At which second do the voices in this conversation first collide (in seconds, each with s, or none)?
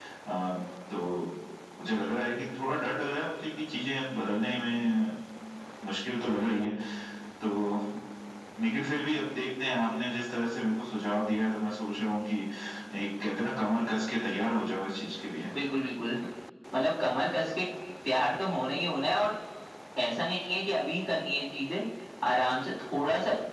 none